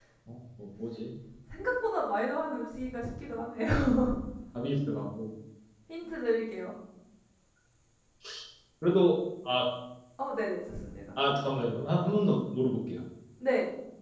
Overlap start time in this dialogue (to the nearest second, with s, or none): none